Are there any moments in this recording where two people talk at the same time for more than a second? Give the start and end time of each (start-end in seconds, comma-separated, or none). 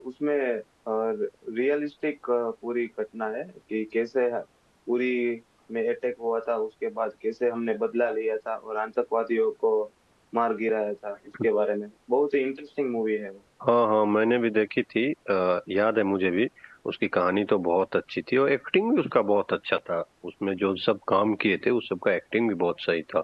none